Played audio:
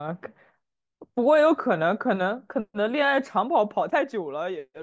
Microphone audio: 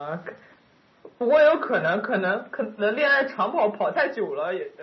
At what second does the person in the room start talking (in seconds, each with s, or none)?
none